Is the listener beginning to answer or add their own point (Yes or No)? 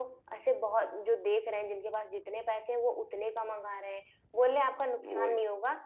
No